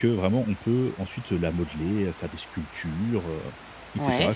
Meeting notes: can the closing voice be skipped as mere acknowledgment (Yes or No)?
Yes